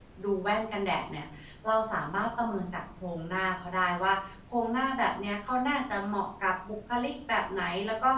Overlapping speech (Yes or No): No